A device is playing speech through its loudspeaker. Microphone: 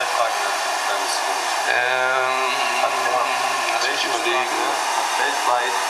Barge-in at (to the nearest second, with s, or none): none